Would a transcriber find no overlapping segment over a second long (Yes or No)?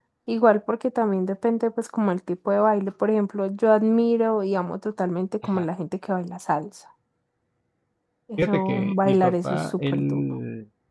No